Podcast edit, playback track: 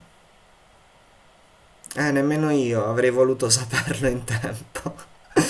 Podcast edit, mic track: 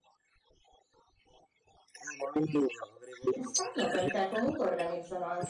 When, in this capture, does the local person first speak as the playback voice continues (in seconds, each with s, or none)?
3.3 s